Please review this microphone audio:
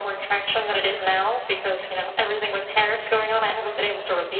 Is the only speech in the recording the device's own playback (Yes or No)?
Yes